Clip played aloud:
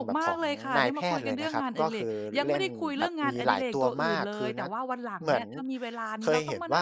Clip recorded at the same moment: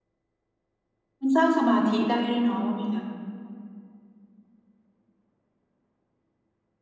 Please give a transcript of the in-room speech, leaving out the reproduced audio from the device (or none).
มันสร้างสมาธิได้ด้วยเนาะว่าไหมคะ